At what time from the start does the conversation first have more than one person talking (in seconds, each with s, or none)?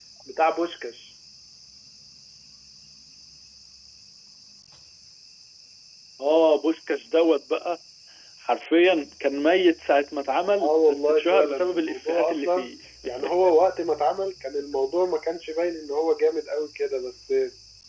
10.6 s